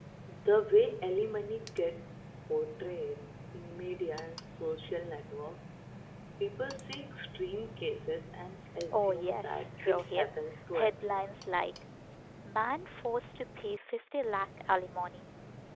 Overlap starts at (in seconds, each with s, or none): 8.9 s